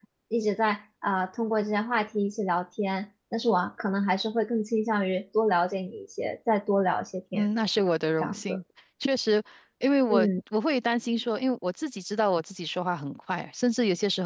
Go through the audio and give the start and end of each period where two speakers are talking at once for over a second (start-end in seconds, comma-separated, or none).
none